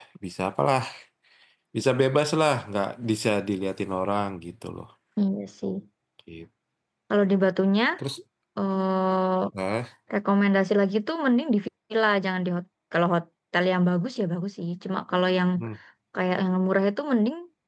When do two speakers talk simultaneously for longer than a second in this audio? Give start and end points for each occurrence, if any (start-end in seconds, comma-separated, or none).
none